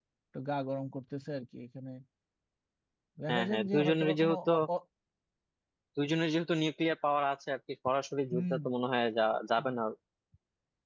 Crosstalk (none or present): present